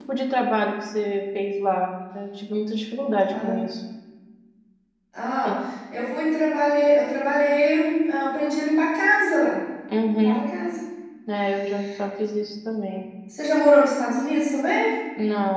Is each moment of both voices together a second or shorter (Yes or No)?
Yes